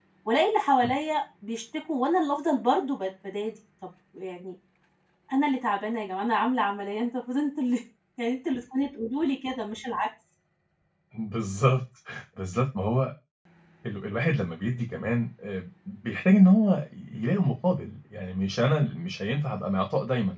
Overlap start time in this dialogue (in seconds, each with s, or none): none